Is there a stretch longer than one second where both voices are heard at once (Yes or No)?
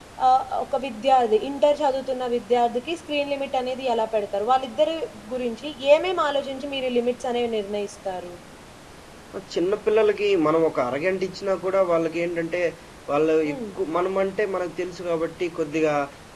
No